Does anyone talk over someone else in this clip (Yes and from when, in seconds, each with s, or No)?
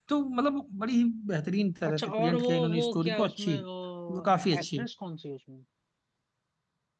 Yes, from 1.8 s